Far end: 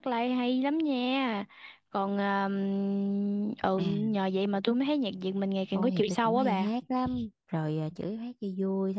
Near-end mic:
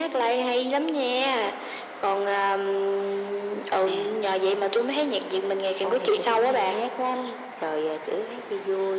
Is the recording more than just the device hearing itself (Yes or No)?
No